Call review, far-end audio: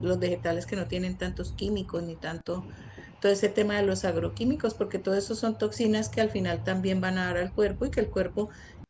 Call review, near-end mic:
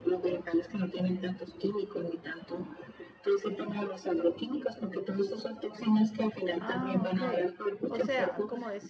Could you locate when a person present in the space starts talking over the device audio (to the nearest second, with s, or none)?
7 s